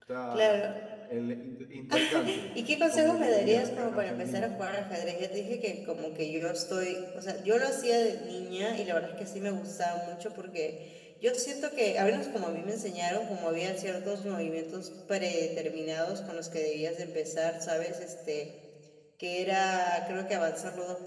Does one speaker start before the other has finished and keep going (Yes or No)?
Yes